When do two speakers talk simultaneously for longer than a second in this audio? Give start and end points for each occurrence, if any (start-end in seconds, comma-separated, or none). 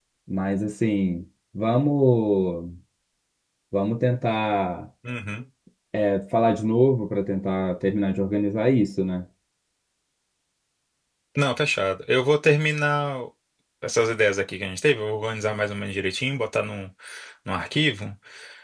none